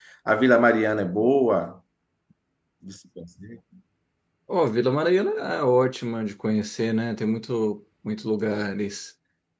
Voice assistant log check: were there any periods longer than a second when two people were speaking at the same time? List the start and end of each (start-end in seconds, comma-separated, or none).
none